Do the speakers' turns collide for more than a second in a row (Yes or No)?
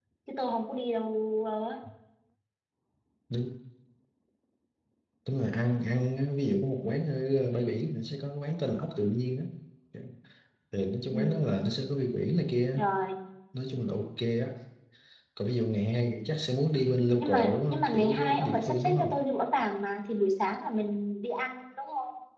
Yes